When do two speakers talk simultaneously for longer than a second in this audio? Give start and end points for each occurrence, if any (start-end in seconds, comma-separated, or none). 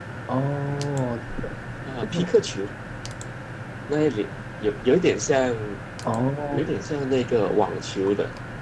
none